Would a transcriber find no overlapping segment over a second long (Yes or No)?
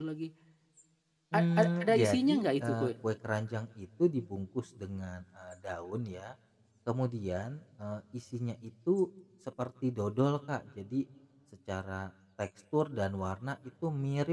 No